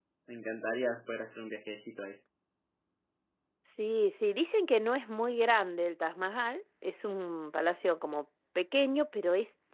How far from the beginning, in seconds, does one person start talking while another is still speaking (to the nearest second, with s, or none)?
none